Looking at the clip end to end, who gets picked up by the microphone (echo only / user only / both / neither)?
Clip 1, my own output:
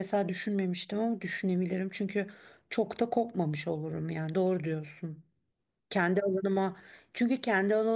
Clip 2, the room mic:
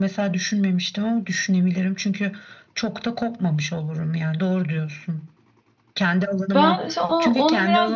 both